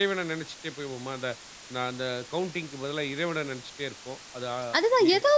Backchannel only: No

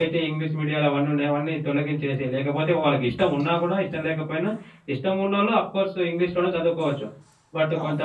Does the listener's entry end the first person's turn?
No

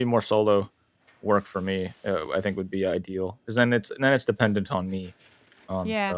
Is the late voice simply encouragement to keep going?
No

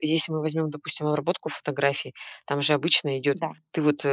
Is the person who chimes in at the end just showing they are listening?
Yes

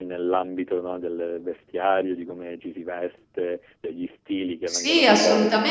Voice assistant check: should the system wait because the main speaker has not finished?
No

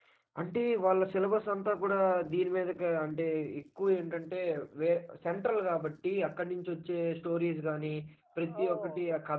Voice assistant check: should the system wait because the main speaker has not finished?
Yes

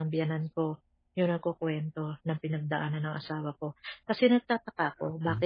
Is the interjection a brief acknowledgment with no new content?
Yes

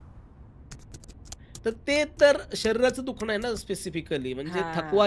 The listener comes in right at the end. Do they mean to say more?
No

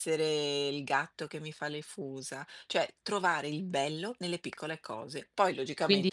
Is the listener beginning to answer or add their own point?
Yes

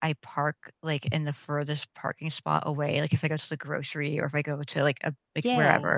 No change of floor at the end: Yes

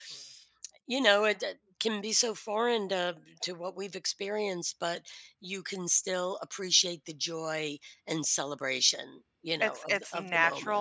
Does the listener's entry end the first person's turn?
Yes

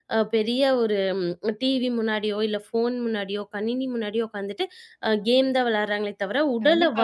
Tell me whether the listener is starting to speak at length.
Yes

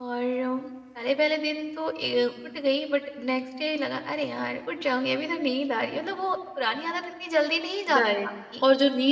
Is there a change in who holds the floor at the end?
Yes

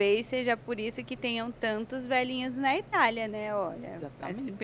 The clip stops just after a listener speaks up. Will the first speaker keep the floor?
No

